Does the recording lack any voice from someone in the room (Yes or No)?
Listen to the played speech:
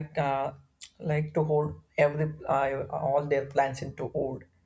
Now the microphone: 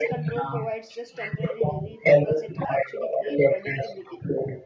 No